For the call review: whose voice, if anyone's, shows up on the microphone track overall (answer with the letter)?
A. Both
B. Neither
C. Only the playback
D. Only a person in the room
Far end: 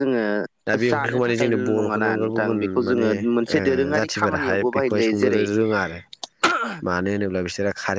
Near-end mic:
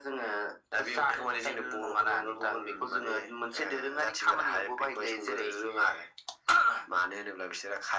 C